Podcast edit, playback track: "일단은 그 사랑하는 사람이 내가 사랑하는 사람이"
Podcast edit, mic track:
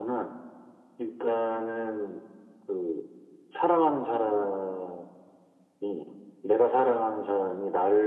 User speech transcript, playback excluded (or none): none